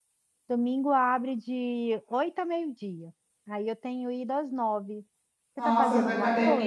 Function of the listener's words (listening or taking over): taking over